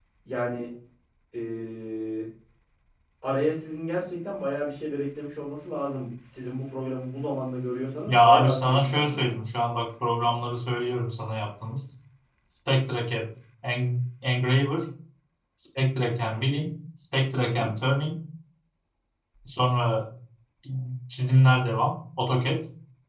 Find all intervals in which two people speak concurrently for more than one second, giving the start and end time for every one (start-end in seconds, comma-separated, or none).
8.1-9.3